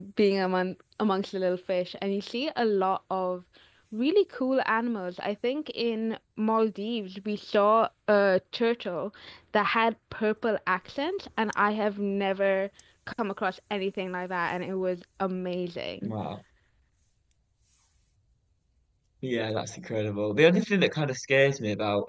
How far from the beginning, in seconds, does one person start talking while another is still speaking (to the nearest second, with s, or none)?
none